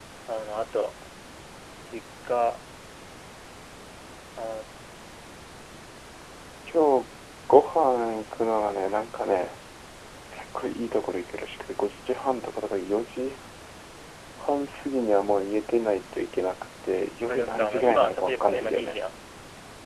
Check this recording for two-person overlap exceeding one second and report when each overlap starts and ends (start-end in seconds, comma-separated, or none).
17.3-19.0